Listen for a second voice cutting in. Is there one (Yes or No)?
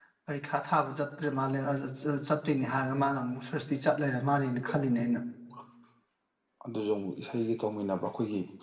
No